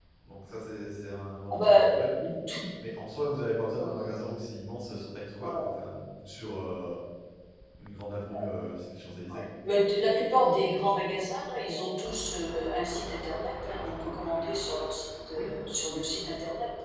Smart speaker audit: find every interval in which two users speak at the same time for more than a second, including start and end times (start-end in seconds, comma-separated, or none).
none